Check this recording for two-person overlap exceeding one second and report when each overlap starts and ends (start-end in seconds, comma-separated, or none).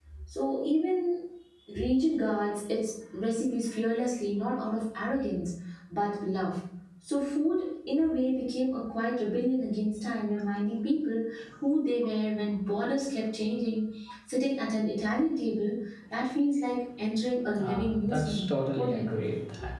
17.6-19.3